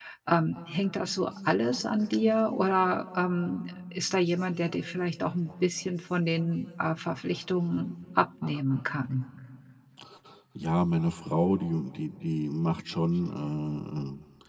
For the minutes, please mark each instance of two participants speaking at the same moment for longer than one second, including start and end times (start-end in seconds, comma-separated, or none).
none